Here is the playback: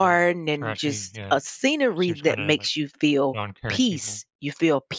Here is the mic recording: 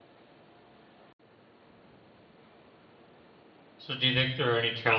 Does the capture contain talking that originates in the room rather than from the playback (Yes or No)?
Yes